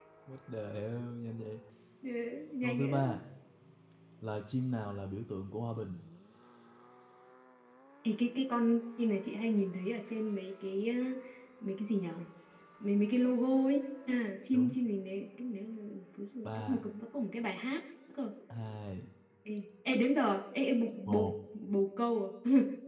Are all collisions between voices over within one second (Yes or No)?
Yes